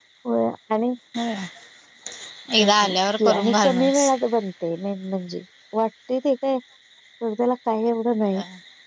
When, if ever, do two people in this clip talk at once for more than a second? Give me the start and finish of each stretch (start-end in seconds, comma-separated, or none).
2.6-4.1